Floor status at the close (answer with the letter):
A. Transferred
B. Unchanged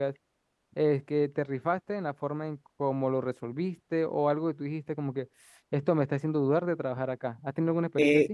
A